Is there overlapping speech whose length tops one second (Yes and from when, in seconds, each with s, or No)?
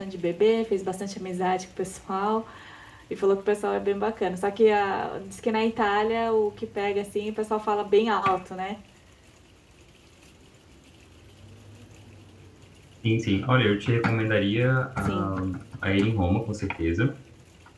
No